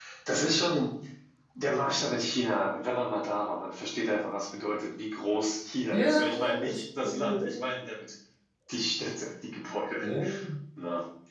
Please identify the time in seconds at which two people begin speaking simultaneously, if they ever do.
5.9 s

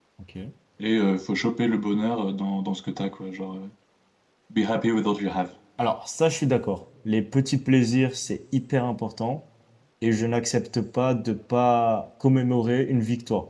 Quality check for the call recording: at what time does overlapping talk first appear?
none

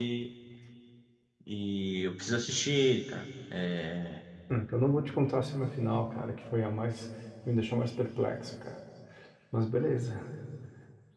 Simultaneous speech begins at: none

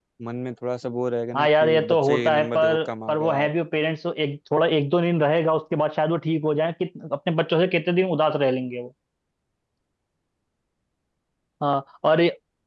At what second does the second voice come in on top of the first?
1.3 s

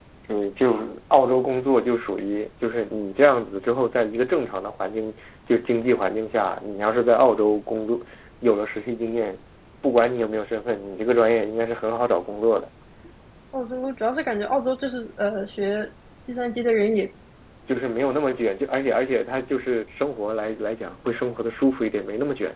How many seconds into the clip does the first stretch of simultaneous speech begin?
none

